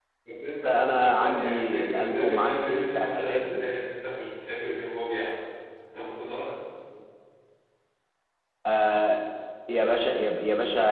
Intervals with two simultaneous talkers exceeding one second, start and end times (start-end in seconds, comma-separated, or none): 0.6-3.7